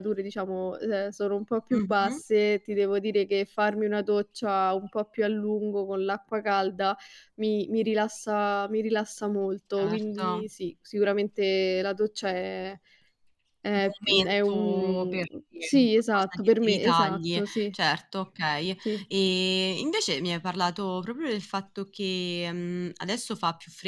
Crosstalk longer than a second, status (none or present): present